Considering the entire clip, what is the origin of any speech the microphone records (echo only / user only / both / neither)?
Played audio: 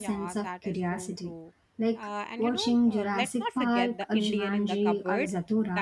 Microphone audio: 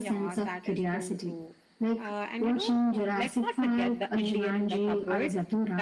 echo only